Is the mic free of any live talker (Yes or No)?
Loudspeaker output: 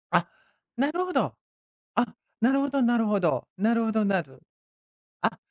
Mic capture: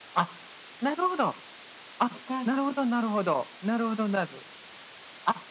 No